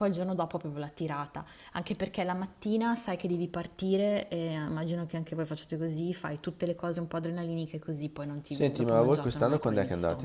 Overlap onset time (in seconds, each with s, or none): 8.5 s